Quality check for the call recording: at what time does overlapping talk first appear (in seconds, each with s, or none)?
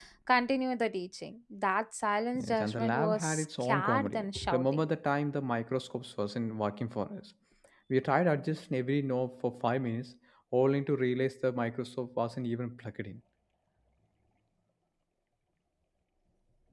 2.4 s